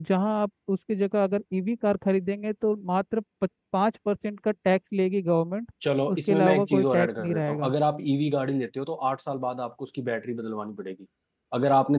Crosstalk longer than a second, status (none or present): present